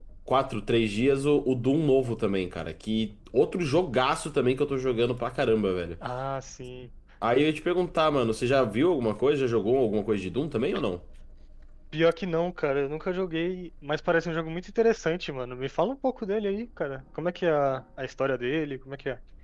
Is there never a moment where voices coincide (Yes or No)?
Yes